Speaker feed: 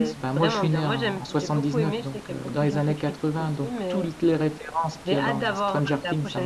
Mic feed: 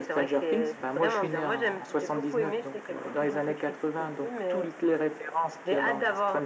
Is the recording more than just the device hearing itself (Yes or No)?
No